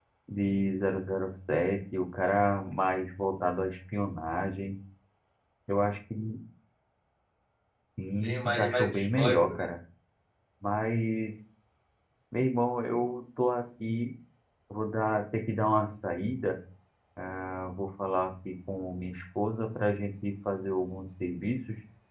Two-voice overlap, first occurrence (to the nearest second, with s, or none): 8 s